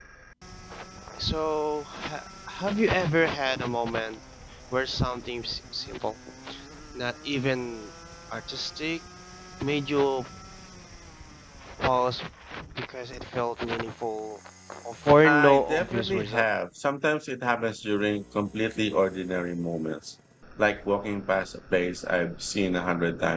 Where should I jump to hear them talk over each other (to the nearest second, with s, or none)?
15 s